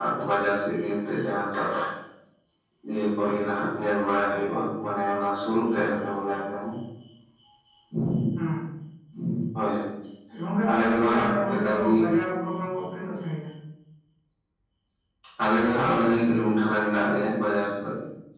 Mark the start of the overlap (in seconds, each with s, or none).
10.7 s